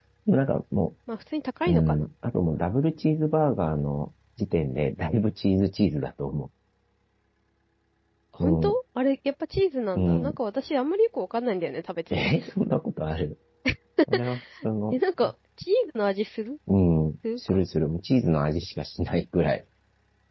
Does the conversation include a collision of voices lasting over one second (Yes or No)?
No